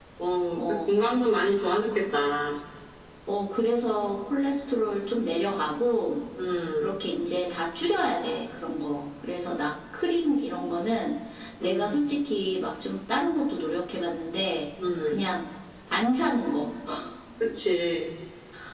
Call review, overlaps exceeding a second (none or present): none